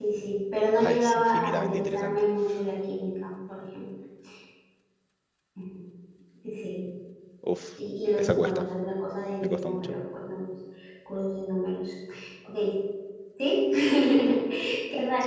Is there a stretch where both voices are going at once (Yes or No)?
Yes